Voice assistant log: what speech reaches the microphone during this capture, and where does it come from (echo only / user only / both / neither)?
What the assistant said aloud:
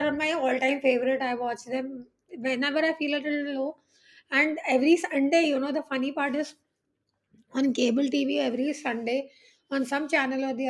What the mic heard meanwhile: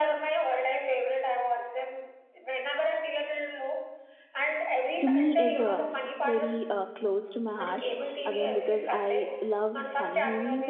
both